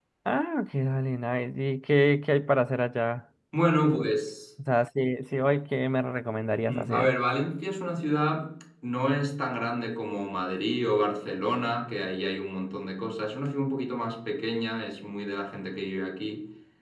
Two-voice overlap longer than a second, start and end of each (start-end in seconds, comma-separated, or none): none